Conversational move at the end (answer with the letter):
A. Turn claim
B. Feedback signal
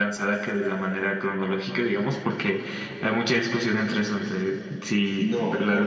A